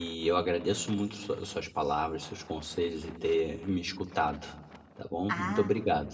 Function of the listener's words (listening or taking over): taking over